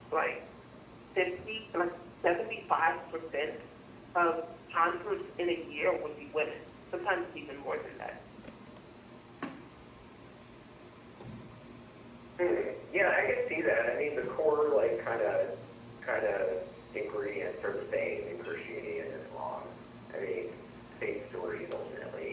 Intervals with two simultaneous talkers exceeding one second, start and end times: none

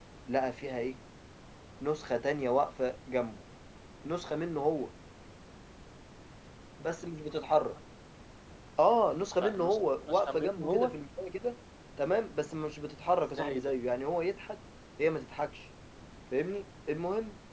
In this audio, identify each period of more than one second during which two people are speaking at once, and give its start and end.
9.2-11.0

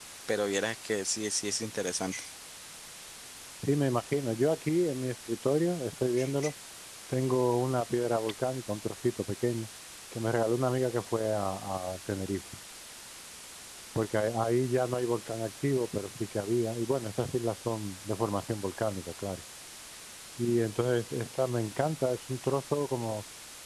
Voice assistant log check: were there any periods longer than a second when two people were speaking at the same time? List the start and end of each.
none

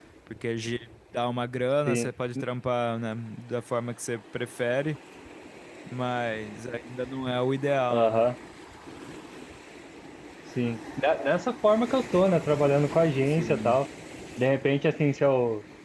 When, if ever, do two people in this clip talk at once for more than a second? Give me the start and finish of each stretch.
none

